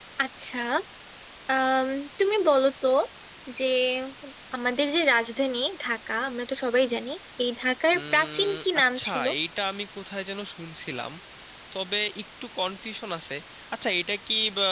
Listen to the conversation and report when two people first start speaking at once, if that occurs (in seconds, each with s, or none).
7.9 s